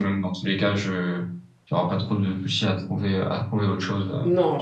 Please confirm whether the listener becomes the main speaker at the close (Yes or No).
Yes